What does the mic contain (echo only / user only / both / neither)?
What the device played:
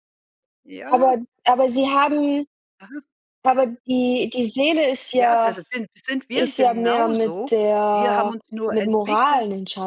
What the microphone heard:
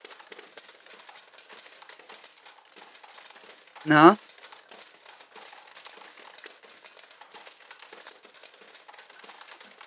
user only